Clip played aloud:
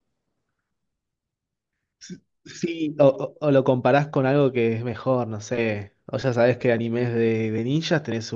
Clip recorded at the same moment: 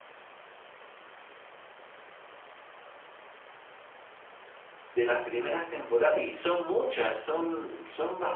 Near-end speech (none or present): present